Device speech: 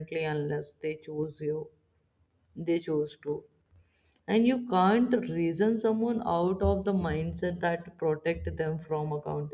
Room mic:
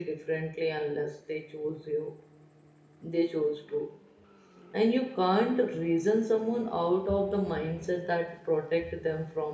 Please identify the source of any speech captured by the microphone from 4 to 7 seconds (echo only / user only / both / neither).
echo only